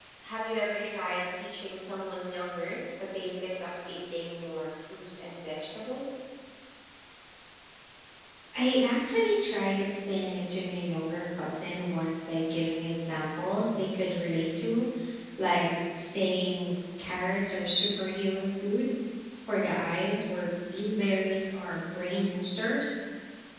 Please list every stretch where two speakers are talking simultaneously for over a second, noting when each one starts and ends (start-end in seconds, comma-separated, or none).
none